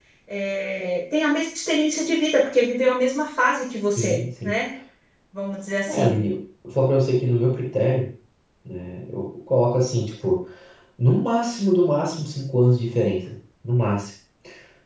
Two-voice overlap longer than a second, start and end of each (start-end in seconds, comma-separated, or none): none